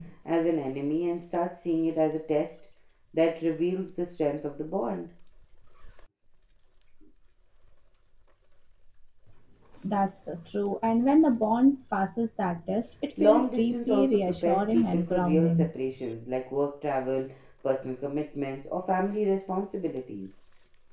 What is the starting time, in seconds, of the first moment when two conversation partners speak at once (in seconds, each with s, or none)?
13.2 s